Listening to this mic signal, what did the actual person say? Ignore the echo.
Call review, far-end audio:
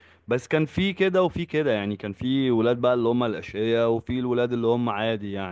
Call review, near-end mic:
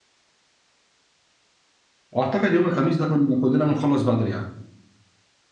واعتقد يوم الخميس ده كنا كلنا بنخلص بدري يعني

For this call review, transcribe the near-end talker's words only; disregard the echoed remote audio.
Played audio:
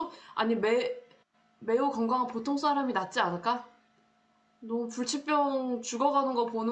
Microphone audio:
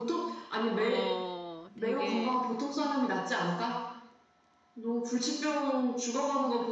어, 되게,

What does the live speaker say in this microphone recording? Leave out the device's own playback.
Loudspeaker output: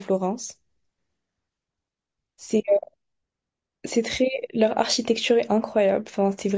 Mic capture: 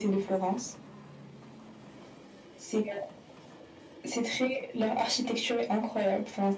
none

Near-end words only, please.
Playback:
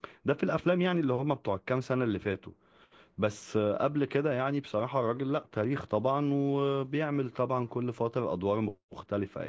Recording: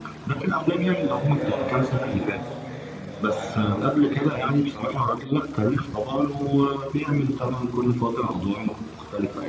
آه، يمكن أنا بحب برضو محمد صبحي أنت عارف محمد صبحي ليه مس-

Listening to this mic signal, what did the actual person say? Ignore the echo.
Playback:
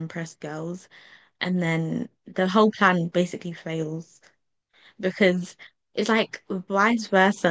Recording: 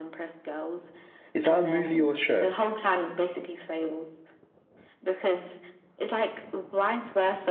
Is that a movie or a show?

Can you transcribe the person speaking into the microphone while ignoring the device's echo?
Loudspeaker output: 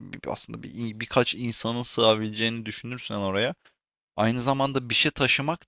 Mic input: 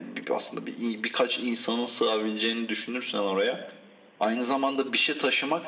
none

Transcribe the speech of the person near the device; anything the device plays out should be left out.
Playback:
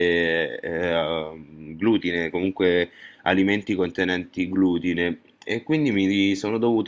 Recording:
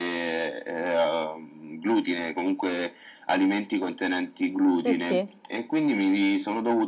sì, sì,

